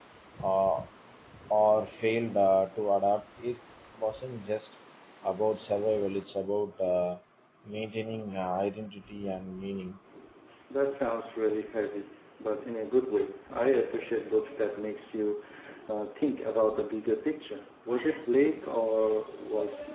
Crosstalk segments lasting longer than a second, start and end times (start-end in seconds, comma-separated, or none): none